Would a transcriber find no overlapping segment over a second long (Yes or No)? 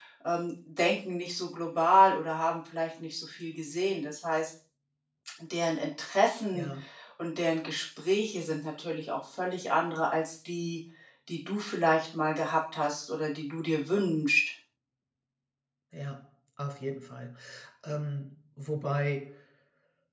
Yes